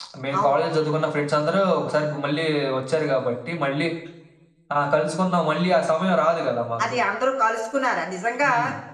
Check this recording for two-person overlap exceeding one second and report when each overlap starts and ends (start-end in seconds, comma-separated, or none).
none